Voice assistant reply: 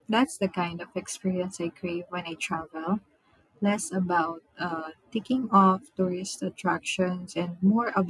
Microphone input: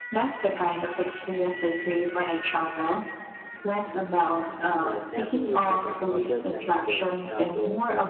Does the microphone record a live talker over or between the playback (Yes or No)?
Yes